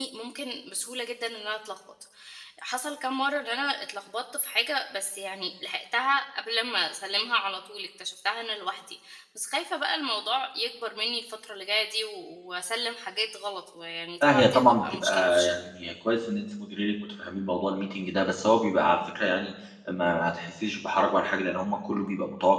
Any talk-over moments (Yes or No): Yes